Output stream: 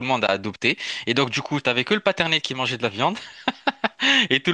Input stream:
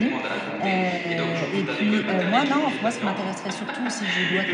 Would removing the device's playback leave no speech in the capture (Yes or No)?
No